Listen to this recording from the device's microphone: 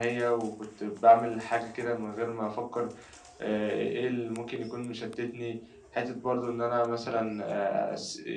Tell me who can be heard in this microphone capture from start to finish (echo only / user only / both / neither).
echo only